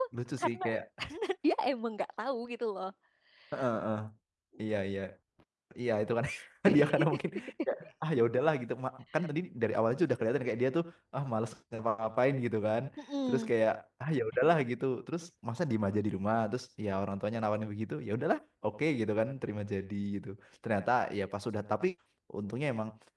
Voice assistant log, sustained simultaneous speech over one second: none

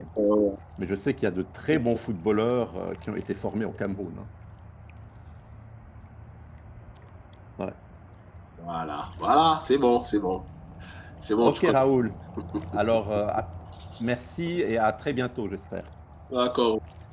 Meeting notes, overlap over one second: none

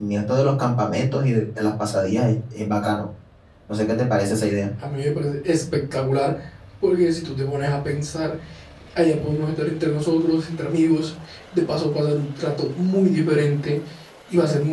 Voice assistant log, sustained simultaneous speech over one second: none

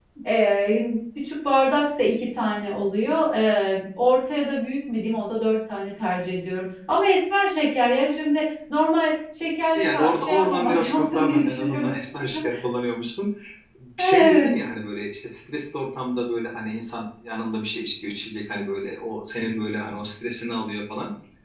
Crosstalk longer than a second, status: present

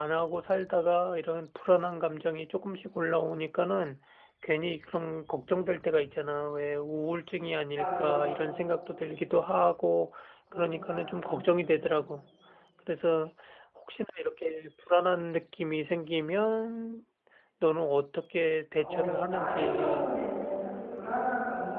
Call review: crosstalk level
present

